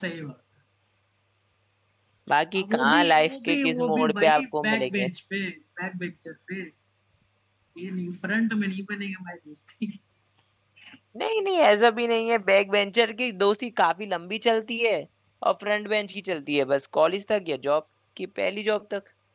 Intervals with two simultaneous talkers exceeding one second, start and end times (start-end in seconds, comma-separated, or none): 2.6-5.1